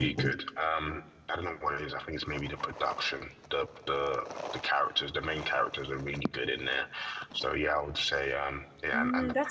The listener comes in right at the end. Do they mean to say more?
Yes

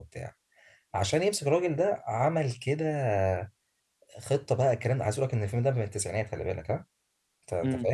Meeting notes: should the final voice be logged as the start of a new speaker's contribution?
No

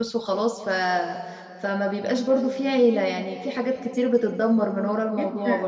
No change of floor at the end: No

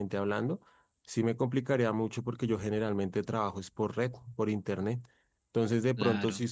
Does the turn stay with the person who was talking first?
Yes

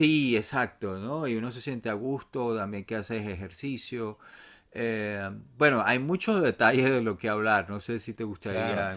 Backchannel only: No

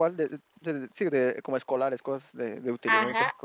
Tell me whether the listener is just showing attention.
No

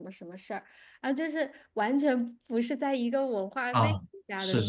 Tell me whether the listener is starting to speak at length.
Yes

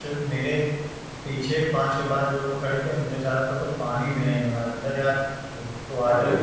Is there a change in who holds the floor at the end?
No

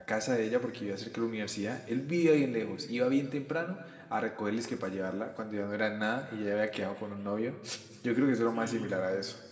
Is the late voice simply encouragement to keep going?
No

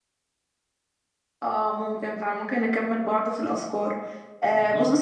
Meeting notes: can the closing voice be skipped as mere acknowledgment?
Yes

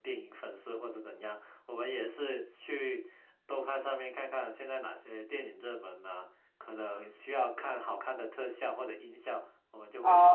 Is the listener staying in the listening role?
No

